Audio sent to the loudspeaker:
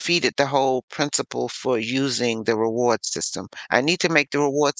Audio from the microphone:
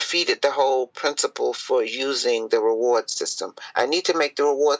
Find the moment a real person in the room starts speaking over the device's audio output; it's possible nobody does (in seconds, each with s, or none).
none